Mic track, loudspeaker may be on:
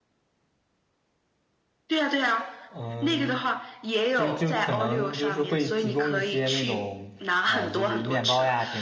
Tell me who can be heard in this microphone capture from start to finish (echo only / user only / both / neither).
both